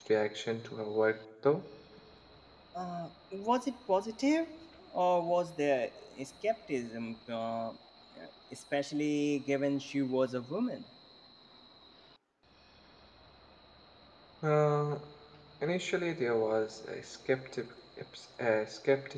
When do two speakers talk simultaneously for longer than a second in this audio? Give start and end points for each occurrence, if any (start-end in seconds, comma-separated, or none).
none